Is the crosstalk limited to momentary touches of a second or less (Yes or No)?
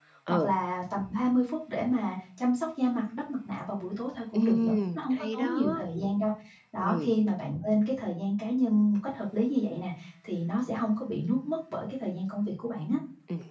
No